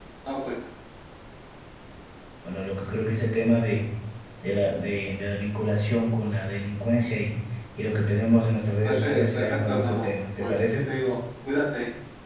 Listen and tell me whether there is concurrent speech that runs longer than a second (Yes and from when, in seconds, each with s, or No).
Yes, from 8.8 s